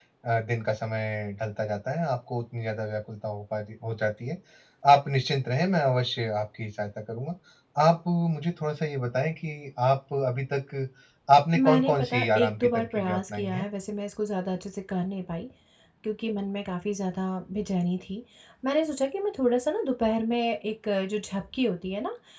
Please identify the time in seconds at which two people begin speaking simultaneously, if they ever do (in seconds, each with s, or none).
11.7 s